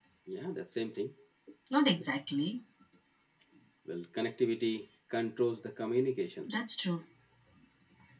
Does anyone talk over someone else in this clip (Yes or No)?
No